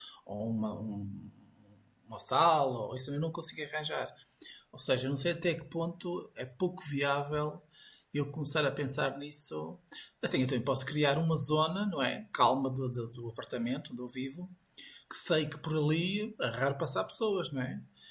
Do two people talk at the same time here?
No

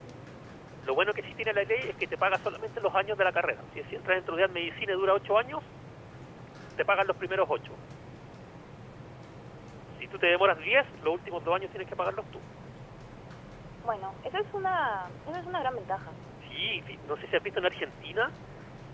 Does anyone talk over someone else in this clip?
No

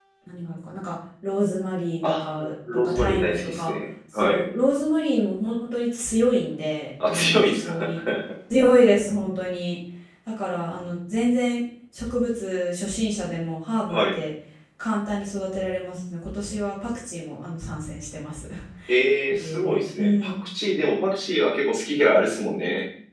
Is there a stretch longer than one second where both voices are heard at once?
Yes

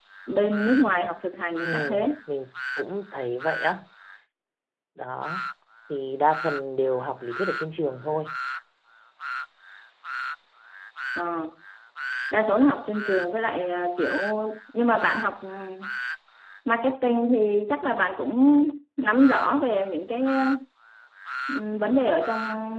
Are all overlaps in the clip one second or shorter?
Yes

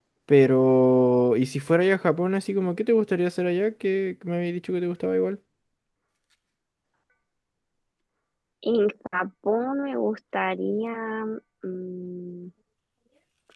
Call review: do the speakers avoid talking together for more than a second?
Yes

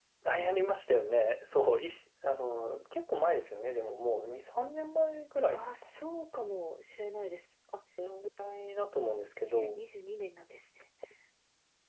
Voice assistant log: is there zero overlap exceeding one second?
Yes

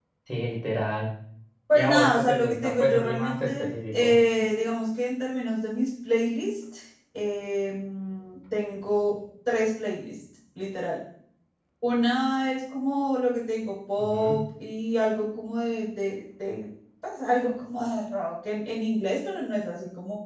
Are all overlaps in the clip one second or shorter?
No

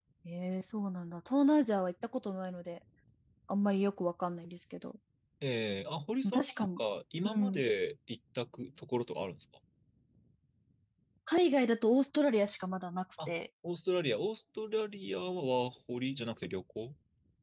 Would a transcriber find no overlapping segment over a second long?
Yes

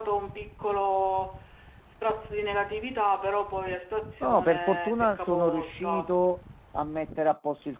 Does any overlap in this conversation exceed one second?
Yes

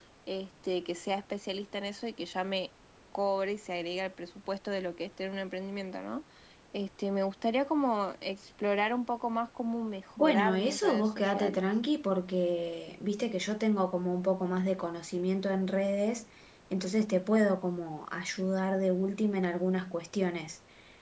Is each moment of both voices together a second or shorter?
No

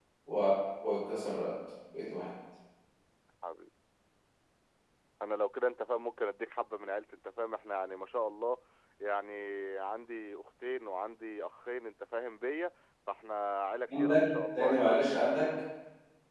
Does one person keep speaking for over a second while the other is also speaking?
Yes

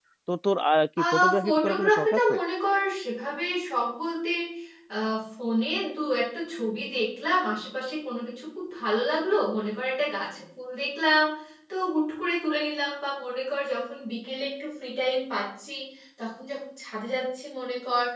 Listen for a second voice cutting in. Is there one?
Yes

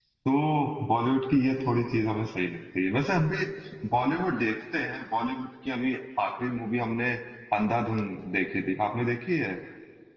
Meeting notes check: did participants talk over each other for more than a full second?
No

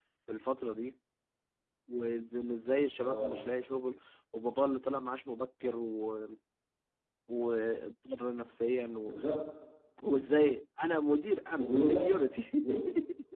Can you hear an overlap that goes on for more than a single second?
No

